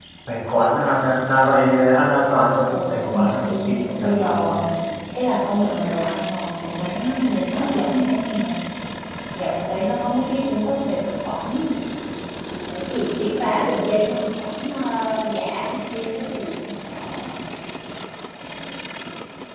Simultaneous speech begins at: 2.7 s

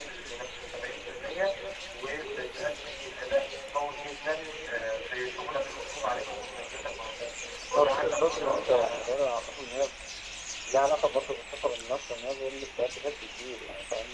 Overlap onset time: 7.8 s

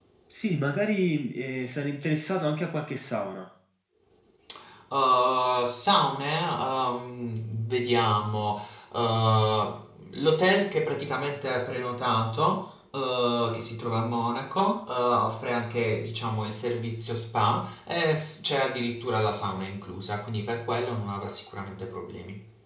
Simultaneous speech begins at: none

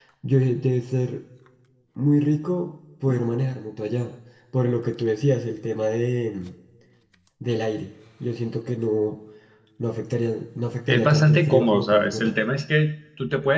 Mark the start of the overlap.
10.9 s

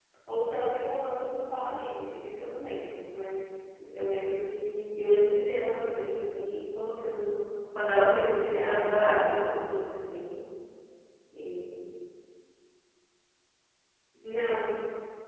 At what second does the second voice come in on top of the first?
8.2 s

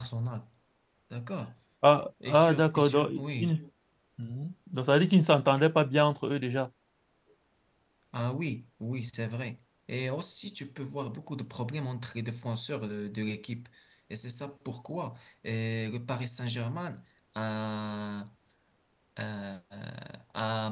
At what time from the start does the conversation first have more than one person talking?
2.3 s

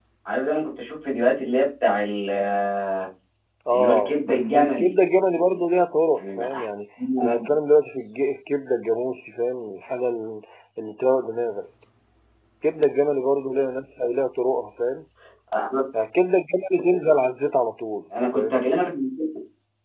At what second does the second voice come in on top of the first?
3.7 s

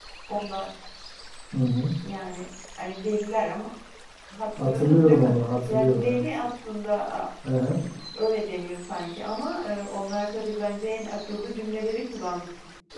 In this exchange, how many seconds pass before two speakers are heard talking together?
4.6 s

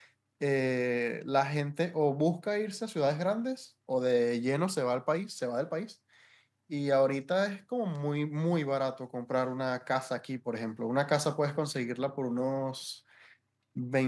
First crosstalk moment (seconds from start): none

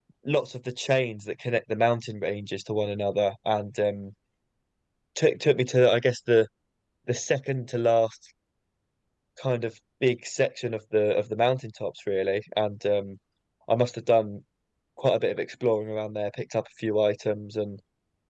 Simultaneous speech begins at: none

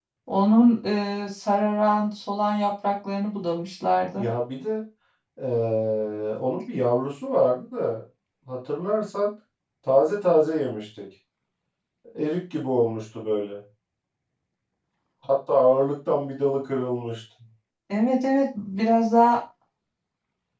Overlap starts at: none

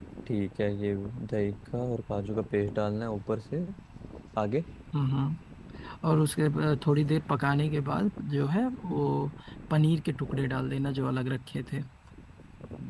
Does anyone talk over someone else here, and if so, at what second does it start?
none

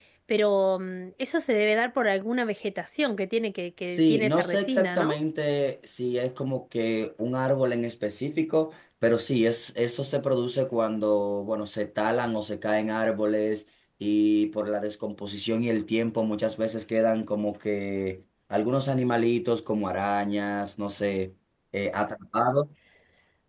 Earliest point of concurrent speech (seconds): 3.9 s

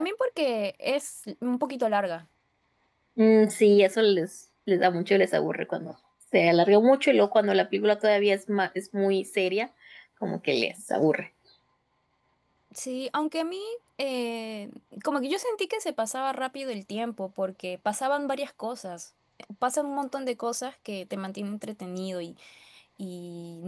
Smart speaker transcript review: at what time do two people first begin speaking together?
none

